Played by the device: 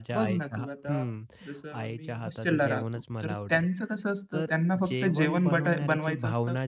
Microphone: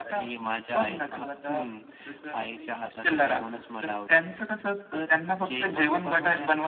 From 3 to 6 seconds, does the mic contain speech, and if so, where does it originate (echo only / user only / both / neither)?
echo only